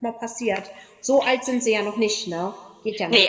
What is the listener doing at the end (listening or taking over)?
taking over